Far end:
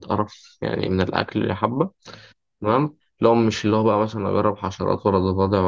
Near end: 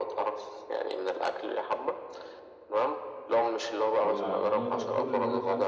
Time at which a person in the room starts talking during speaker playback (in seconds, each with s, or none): 4.0 s